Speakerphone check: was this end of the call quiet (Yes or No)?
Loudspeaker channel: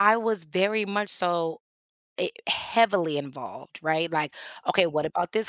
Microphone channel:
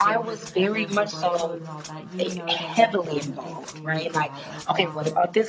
No